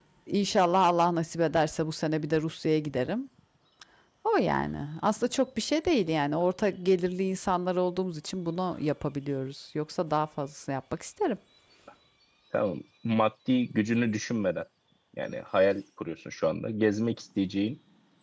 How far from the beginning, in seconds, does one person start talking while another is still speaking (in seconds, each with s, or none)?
none